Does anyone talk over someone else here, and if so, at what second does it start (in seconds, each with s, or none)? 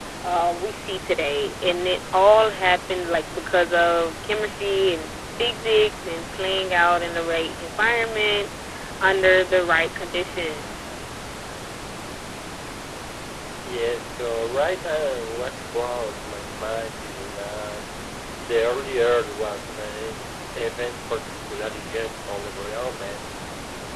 none